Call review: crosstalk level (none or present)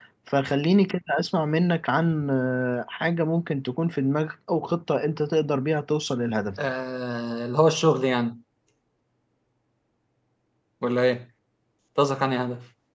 none